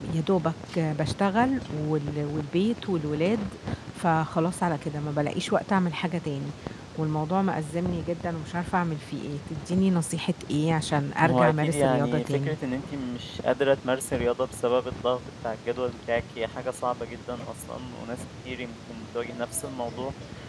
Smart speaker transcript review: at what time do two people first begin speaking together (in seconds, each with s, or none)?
11.2 s